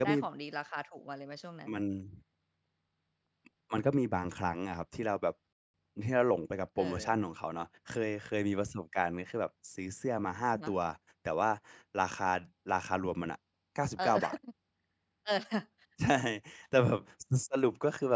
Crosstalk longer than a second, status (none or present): none